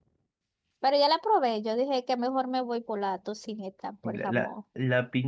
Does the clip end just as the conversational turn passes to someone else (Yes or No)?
Yes